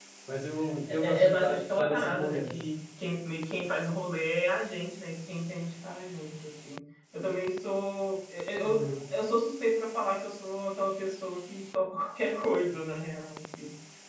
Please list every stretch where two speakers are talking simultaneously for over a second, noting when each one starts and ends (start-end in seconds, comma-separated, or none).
0.9-2.5